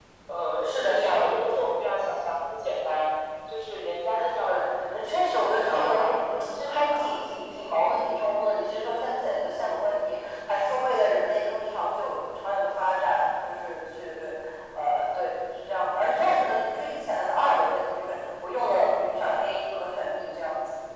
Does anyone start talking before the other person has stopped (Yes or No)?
Yes